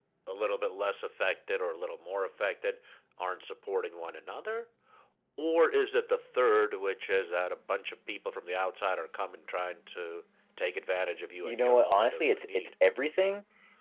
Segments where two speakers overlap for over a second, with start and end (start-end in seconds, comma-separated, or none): 11.4-12.7